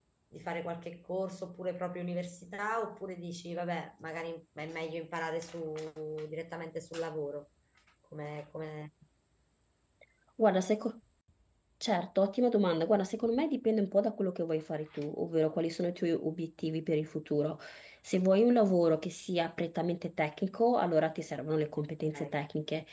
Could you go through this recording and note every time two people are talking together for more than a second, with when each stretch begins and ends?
none

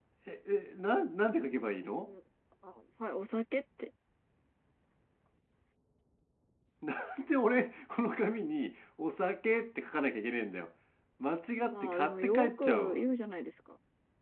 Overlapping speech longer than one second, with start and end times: 11.7-13.0

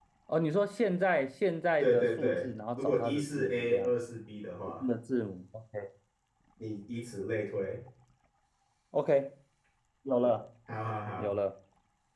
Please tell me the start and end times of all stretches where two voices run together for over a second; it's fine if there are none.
1.8-3.9

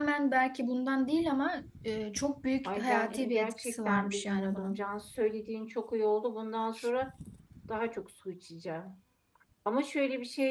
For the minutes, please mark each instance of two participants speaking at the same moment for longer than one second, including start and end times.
2.6-4.8

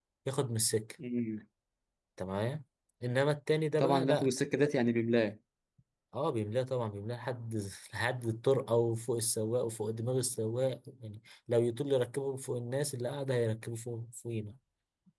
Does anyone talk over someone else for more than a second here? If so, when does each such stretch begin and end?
none

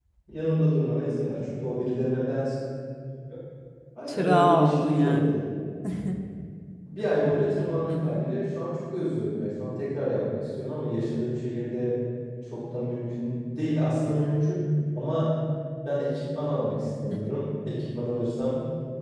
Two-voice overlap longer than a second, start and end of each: 4.1-5.4

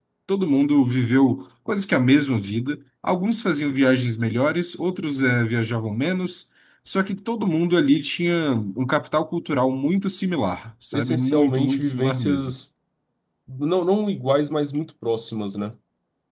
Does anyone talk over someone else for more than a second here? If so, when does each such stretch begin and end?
10.9-12.5

